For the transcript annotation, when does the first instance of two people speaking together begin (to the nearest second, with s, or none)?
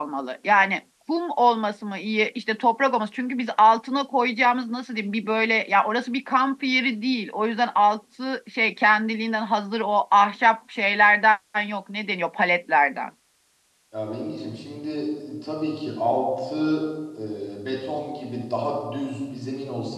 none